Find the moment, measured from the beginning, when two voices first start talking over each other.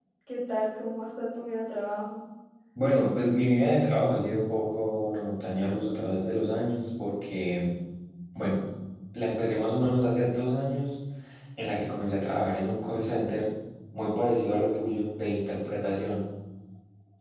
none

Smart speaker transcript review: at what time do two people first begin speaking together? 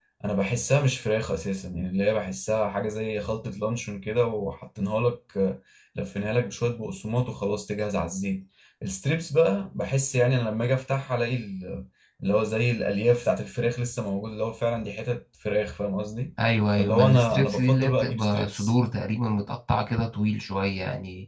16.8 s

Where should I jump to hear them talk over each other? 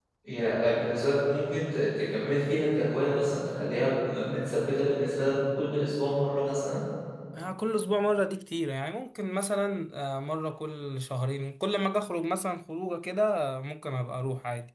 none

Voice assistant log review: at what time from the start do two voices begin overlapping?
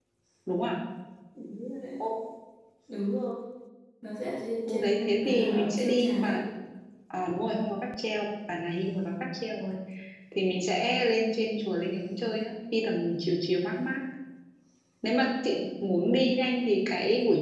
4.7 s

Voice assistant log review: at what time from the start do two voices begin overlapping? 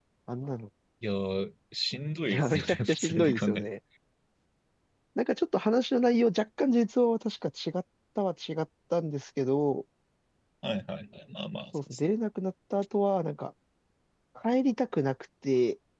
2.3 s

